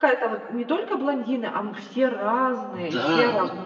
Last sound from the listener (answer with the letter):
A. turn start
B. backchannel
A